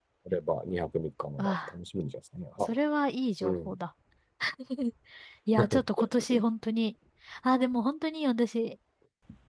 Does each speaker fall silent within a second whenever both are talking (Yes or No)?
Yes